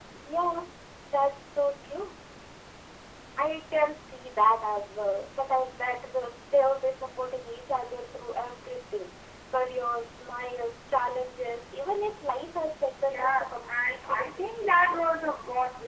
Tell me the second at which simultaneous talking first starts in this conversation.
13.1 s

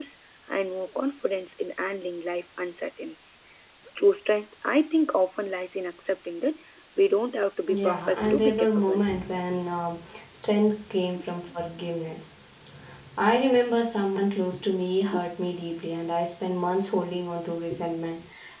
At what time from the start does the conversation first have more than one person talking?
7.7 s

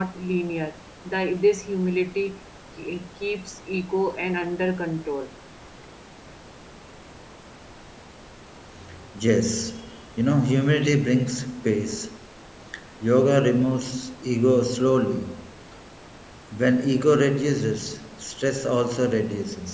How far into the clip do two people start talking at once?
none

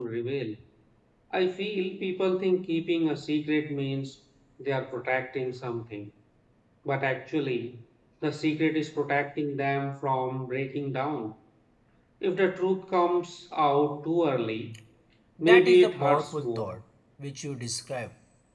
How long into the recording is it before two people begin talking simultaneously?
15.4 s

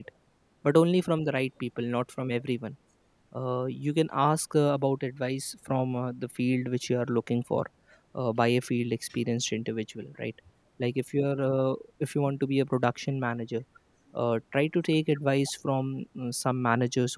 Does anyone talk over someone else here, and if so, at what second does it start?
none

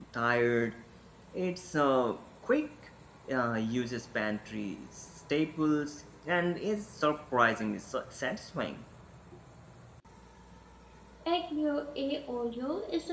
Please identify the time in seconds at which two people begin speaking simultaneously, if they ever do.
none

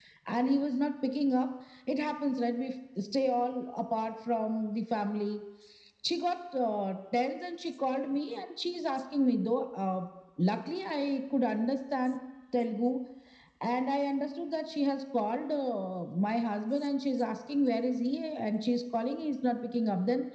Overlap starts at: none

